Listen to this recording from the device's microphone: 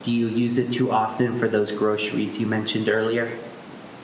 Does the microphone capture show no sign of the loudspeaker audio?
Yes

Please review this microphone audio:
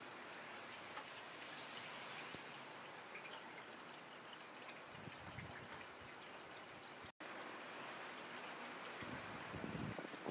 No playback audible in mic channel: Yes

